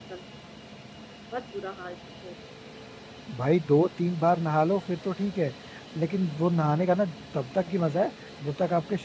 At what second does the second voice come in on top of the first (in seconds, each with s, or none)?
none